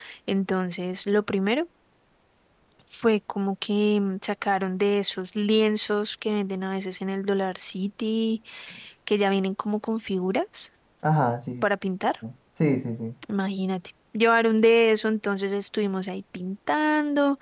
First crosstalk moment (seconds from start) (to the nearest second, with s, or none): none